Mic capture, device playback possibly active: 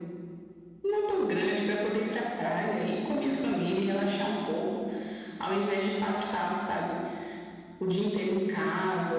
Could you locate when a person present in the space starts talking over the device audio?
none

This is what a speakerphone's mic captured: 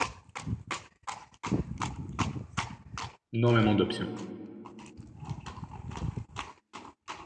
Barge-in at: 3.3 s

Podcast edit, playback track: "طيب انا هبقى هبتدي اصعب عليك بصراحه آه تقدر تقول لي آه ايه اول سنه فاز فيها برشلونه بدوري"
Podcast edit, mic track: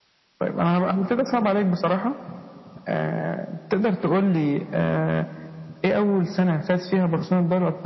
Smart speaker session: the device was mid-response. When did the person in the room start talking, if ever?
none

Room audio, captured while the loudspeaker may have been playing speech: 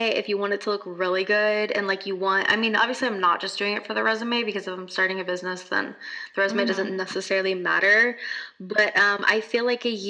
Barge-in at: 6.5 s

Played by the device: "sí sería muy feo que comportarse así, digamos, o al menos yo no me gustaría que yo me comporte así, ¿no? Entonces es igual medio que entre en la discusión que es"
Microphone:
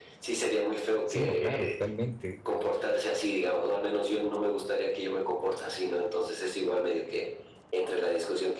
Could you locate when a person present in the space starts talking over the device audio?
1.0 s

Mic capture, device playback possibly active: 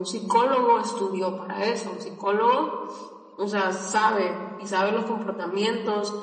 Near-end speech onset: none

